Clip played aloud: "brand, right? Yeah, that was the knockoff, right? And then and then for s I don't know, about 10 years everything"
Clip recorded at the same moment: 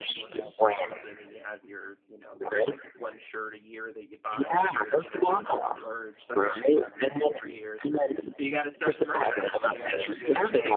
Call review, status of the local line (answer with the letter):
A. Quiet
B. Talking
B